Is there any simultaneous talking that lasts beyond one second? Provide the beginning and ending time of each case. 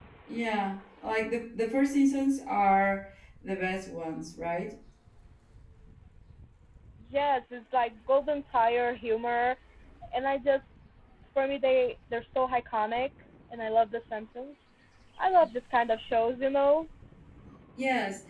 none

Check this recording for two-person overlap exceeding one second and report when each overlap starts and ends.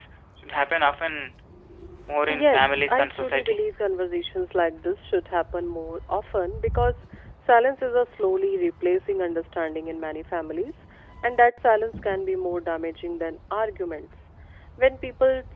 2.3-3.6

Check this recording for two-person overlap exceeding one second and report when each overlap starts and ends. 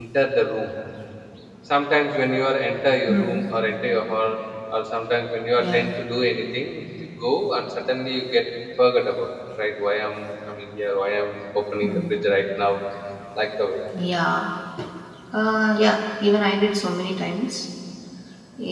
none

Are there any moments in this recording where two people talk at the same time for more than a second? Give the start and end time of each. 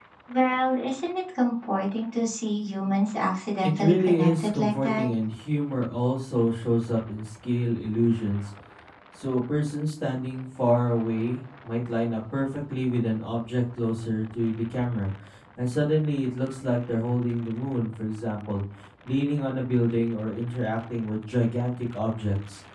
3.6-5.1

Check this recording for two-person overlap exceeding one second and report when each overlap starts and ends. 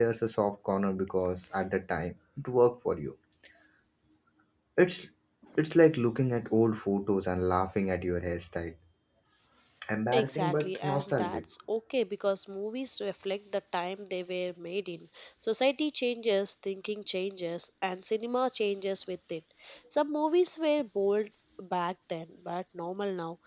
10.1-11.4

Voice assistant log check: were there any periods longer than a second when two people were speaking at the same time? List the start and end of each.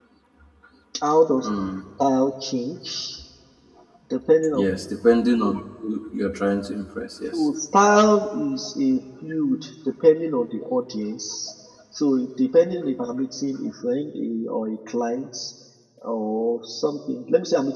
none

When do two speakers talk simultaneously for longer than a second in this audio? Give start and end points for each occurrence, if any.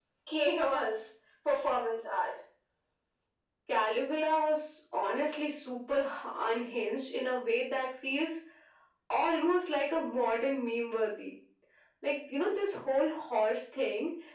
none

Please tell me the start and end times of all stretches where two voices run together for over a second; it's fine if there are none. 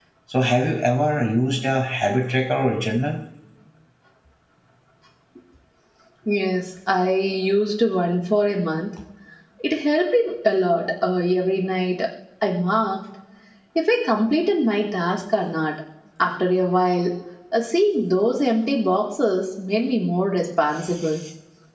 none

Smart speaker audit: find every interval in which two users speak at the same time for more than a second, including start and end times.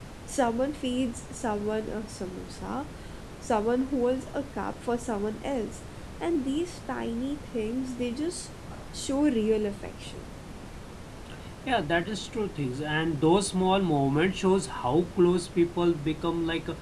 none

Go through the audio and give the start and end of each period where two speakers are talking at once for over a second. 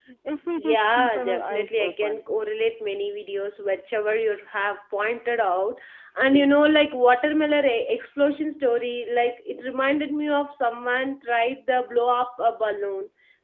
0.6-2.2

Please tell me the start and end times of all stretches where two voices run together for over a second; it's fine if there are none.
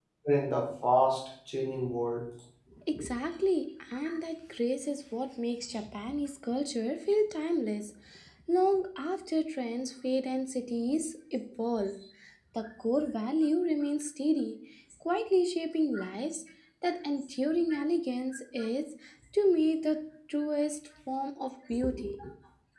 none

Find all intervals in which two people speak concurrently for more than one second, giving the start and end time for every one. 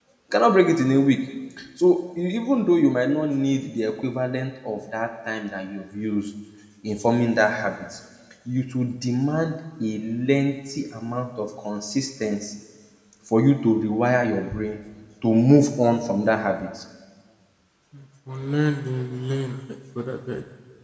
none

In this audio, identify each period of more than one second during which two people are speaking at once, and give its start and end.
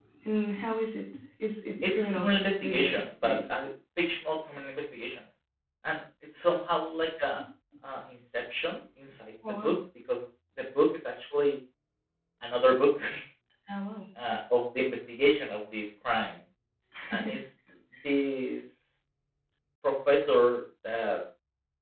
1.8-3.4

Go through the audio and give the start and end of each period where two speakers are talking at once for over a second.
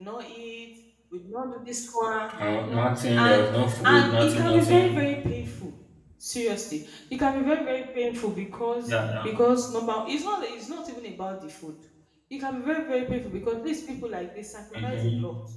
3.9-5.1

